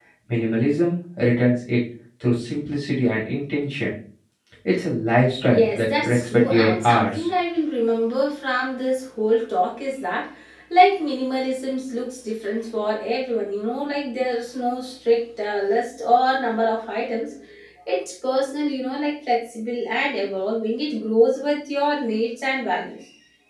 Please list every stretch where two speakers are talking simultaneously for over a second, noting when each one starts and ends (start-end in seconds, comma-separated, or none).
5.5-7.3